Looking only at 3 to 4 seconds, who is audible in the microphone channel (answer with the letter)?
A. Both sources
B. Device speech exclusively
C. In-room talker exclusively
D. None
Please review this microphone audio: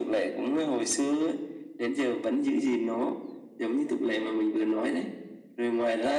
B